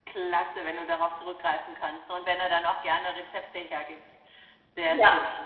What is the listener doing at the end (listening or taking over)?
taking over